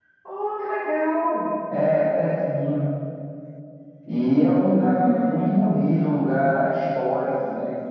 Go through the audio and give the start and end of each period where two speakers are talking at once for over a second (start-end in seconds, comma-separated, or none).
none